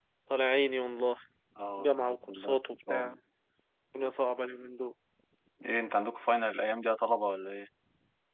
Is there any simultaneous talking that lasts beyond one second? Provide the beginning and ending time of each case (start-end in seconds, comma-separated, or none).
1.8-3.2